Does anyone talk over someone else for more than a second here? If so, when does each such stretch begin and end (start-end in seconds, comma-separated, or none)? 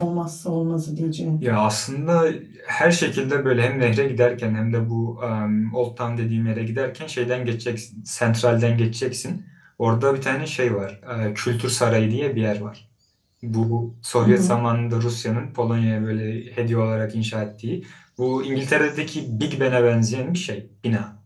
none